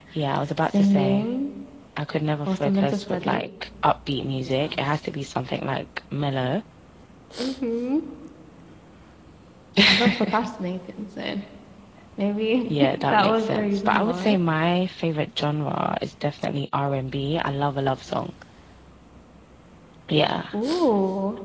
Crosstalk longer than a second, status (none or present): present